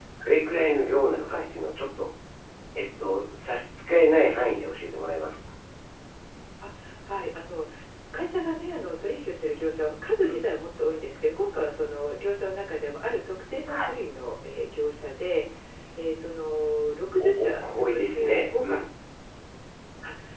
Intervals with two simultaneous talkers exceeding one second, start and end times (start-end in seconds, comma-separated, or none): 17.2-18.8